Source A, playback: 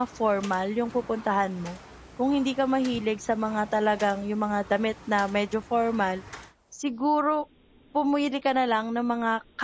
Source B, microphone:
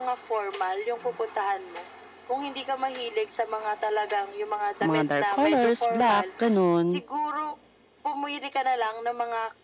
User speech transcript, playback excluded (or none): mga dark colors, black, ganun.